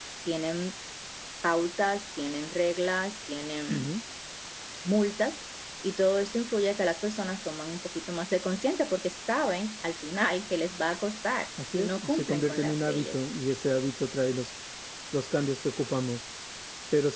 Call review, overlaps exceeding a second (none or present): present